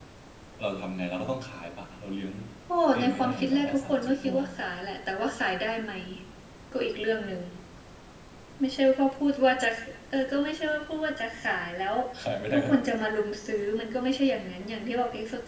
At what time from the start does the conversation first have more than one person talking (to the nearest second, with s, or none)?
3 s